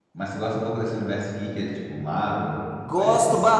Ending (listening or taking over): taking over